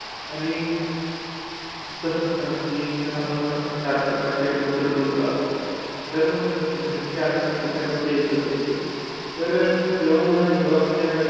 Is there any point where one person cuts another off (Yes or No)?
No